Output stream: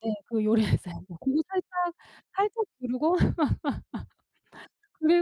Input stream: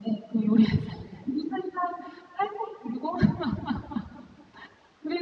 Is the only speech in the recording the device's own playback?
Yes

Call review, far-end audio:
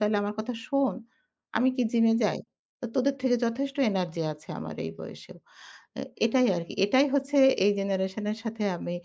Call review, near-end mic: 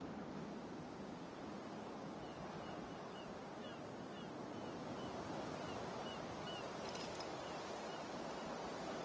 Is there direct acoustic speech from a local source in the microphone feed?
No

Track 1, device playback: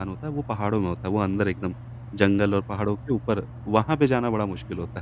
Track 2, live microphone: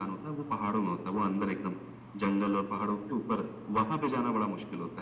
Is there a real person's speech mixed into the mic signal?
No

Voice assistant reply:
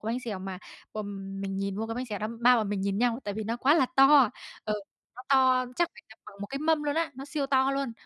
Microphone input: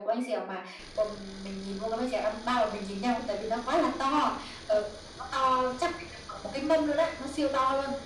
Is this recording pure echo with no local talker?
Yes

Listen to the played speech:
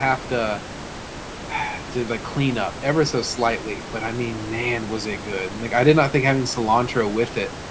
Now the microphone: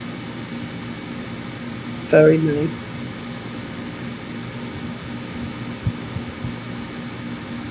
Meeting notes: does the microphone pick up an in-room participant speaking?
Yes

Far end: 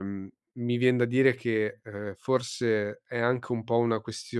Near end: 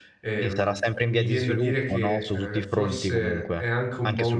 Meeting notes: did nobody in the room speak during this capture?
No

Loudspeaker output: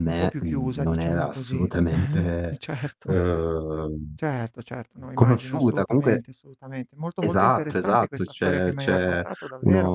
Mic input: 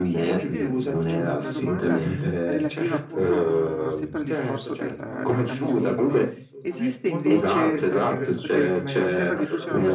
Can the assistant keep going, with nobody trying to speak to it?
No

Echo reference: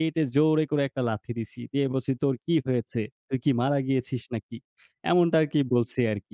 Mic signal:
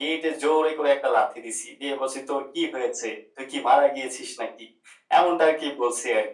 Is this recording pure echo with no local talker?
Yes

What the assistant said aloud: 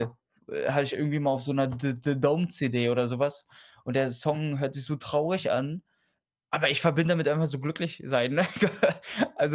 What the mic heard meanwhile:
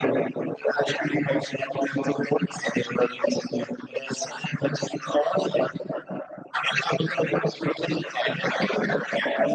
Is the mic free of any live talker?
Yes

